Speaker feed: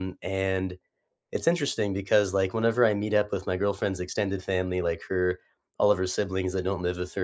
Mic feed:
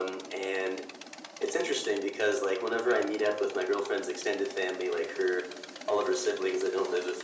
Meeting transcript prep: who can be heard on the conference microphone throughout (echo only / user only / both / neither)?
echo only